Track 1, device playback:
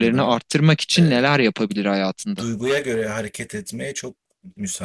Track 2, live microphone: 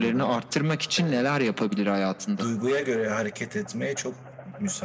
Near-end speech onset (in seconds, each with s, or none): none